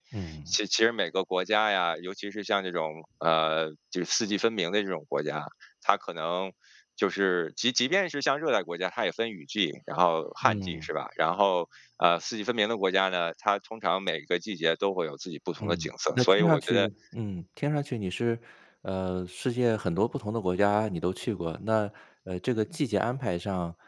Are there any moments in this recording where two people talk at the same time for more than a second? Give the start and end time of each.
15.6-16.9

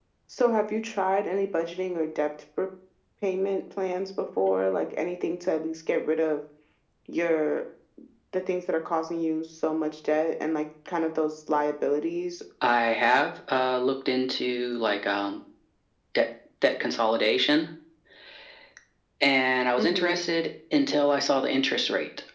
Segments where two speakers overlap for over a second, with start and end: none

